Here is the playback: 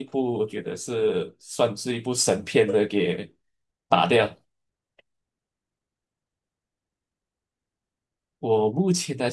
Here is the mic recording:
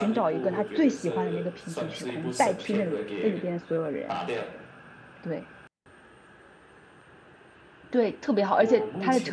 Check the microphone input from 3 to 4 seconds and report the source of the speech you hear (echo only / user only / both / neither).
both